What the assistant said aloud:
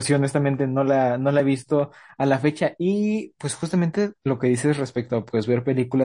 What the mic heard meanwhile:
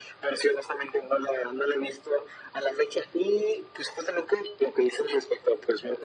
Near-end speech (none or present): none